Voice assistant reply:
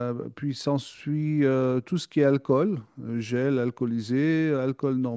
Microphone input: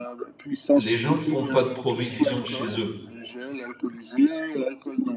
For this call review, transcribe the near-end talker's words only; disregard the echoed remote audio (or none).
les gens ne font pas de provisions chez eux.